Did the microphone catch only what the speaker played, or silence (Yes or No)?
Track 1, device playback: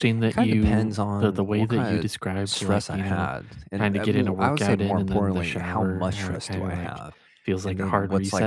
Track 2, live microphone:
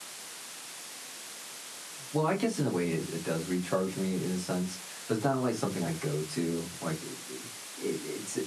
No